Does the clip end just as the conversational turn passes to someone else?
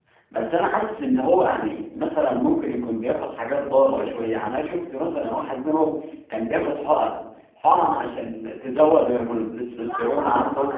Yes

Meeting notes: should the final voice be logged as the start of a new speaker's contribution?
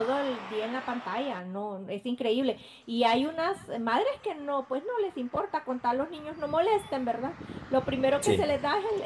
No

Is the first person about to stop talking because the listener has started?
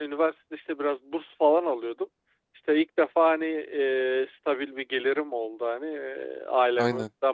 No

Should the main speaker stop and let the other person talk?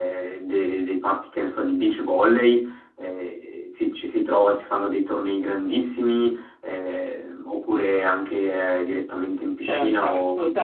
Yes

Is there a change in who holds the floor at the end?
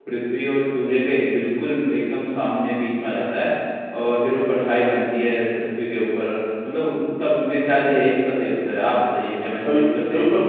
Yes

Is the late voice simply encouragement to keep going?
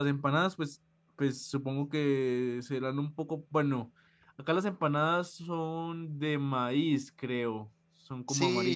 No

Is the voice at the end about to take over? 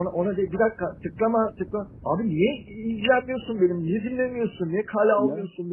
No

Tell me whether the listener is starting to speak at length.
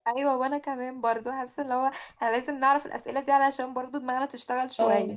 Yes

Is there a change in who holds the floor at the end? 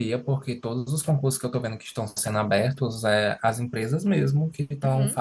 No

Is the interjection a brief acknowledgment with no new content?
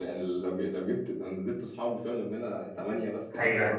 Yes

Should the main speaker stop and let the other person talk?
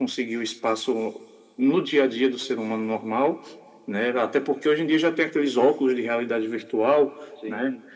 No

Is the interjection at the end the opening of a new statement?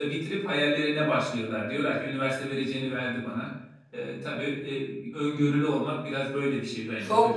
Yes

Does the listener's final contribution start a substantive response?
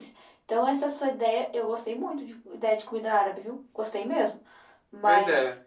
No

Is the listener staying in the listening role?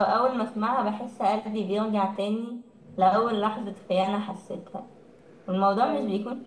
Yes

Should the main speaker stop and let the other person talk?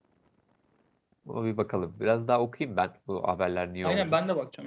Yes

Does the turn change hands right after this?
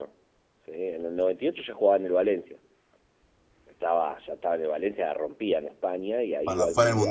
Yes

